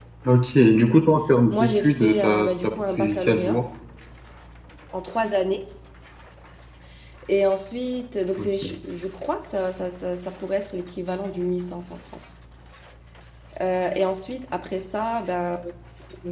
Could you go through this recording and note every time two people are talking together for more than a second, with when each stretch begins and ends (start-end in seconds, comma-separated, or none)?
1.5-3.6